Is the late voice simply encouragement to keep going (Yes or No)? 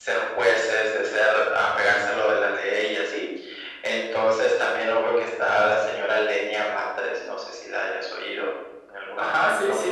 No